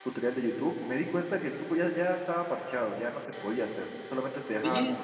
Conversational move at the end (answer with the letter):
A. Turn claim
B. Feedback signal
B